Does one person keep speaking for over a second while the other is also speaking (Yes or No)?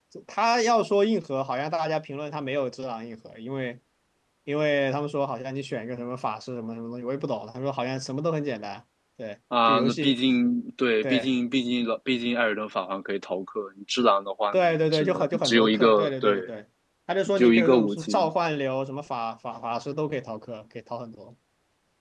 Yes